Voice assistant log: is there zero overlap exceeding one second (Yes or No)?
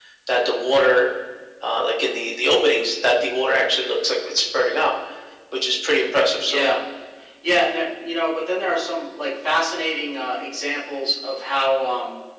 Yes